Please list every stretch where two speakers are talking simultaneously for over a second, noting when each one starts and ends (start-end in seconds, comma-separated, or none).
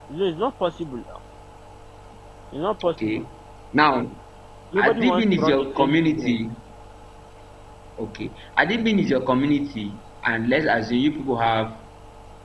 4.8-6.3